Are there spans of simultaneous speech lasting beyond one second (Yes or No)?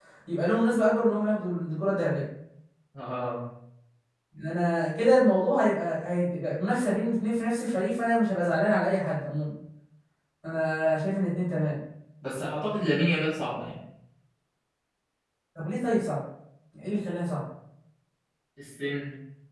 No